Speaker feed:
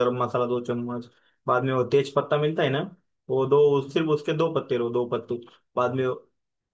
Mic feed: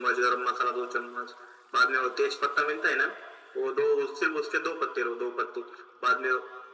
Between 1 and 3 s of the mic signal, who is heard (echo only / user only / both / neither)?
echo only